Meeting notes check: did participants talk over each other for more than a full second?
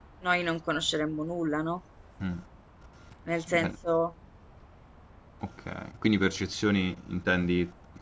No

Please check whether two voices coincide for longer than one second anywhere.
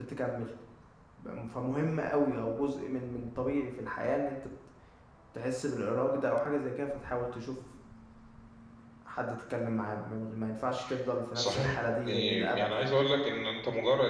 Yes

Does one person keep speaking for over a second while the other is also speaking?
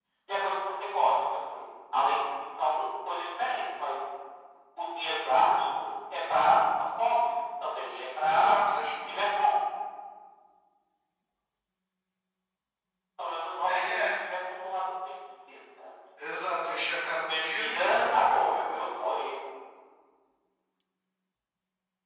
Yes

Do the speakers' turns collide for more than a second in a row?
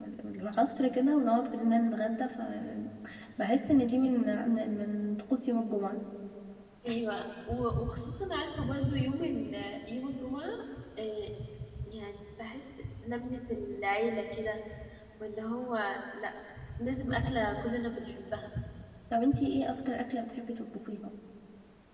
No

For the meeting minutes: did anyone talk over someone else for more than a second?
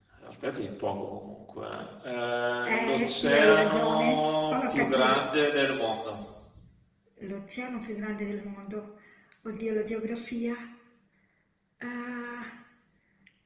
Yes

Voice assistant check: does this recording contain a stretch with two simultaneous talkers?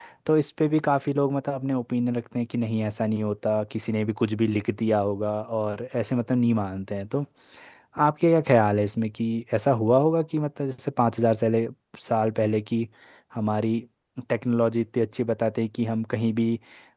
No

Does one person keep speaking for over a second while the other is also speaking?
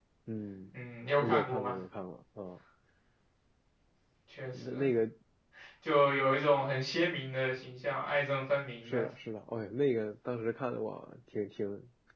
No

